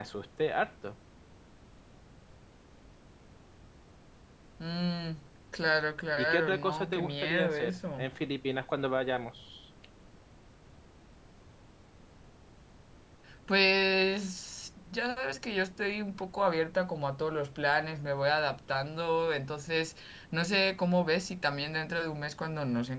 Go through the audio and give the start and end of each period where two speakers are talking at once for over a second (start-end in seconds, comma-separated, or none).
6.2-8.1